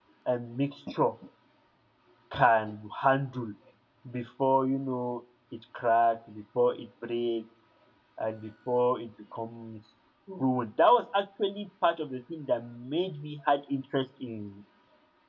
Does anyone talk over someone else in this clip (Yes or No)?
No